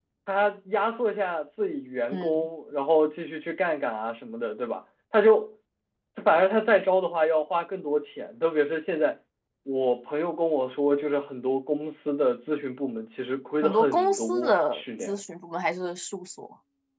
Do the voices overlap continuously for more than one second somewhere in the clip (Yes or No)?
Yes